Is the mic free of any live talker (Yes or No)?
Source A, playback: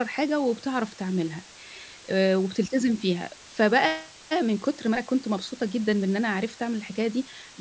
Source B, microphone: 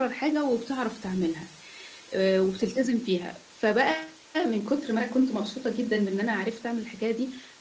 Yes